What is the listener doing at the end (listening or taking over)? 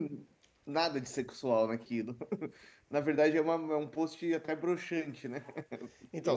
taking over